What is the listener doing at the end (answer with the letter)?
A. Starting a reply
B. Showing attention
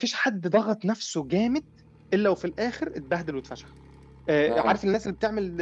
B